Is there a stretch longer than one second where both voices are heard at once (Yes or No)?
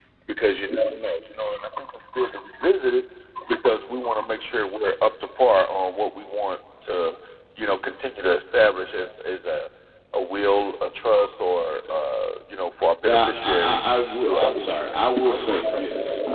Yes